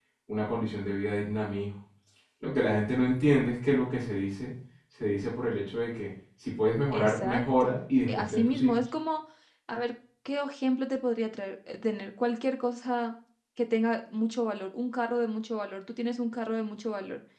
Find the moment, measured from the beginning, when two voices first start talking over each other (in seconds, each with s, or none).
6.9 s